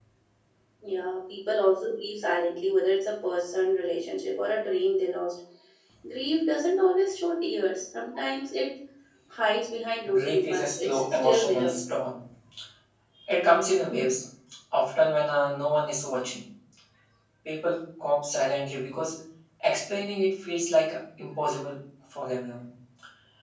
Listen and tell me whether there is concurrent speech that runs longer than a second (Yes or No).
Yes